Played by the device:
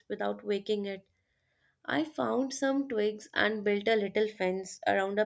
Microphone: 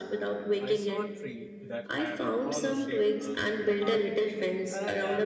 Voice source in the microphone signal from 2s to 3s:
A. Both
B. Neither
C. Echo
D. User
A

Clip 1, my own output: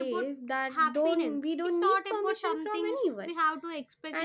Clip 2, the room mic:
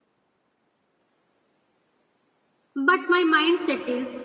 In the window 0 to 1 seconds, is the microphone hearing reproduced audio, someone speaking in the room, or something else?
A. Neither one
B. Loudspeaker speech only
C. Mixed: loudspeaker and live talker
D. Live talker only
A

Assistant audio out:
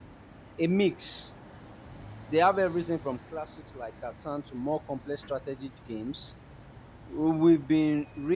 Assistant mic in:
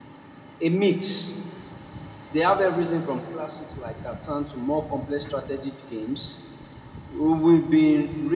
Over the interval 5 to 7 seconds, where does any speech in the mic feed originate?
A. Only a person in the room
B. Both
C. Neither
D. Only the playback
D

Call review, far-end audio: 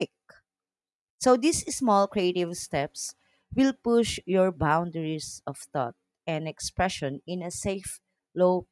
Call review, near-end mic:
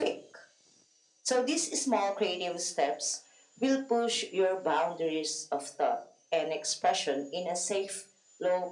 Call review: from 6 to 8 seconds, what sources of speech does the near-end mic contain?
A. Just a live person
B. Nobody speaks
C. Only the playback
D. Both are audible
C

